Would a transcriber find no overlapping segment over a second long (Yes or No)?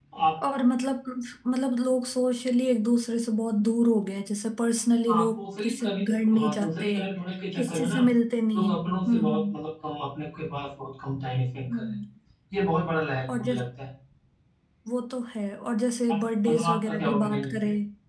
No